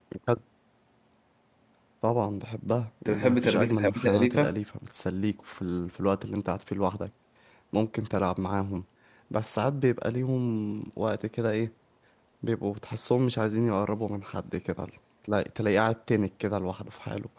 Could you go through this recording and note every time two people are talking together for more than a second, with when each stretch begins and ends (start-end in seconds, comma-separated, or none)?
3.0-4.5